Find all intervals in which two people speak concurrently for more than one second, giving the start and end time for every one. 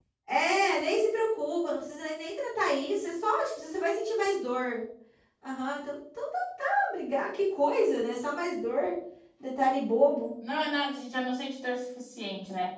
none

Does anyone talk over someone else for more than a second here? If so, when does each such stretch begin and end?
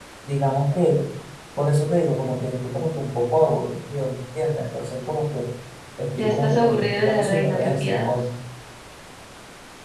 6.1-8.1

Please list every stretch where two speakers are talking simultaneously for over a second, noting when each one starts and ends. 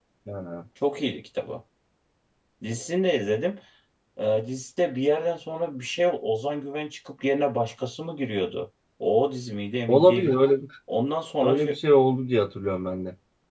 none

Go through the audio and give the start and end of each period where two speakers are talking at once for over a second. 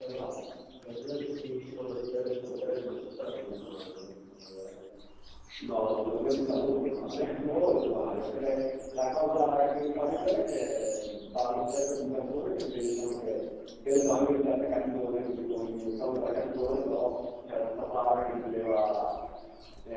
none

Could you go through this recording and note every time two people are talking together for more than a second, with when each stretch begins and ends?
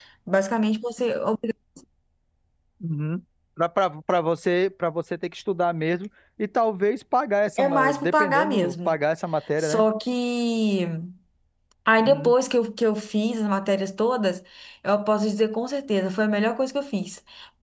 7.6-9.0

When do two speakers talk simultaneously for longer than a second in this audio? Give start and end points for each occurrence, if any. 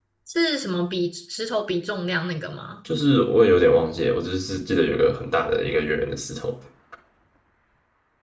none

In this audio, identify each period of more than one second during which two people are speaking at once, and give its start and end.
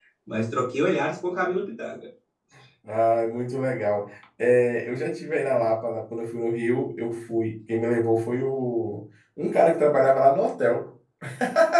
none

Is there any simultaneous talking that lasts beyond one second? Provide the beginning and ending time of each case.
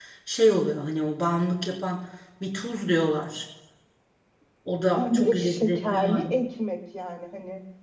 4.9-6.3

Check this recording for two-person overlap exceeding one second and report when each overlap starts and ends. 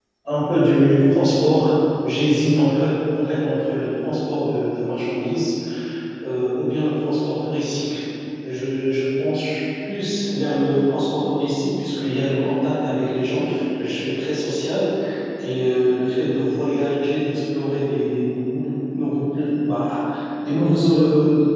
none

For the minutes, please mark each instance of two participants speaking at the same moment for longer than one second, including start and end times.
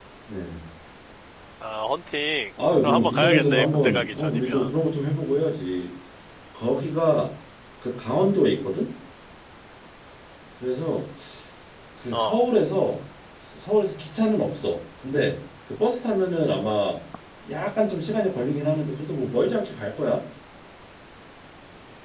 2.8-4.7

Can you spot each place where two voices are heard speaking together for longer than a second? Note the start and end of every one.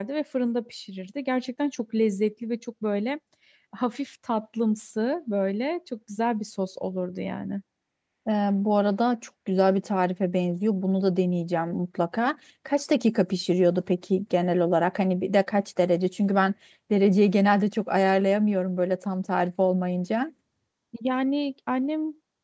none

